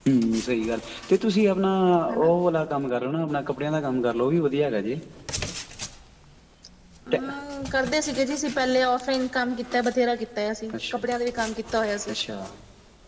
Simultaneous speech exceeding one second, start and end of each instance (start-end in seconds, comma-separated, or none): none